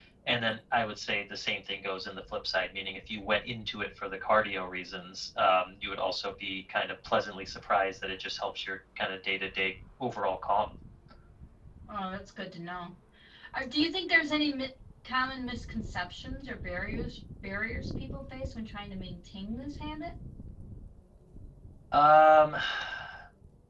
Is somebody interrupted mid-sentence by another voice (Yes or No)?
No